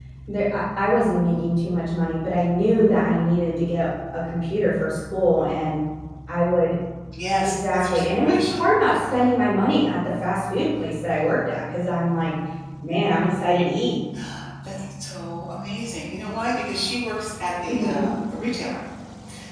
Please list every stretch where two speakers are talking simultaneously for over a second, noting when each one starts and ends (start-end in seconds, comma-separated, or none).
7.4-8.7